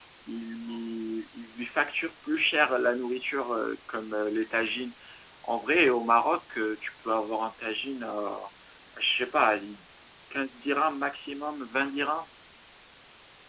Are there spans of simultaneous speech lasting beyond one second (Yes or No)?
No